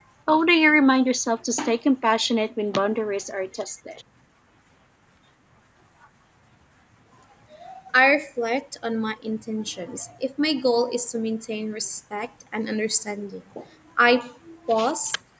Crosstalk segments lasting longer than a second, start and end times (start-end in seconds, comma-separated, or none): none